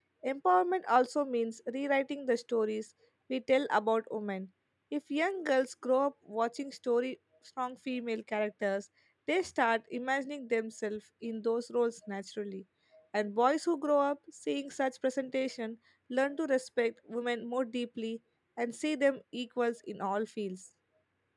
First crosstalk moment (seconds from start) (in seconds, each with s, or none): none